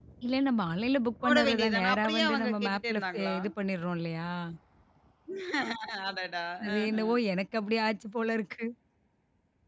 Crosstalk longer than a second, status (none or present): present